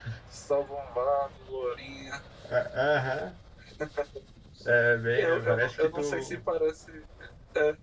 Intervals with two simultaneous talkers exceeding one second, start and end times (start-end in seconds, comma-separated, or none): 5.2-6.4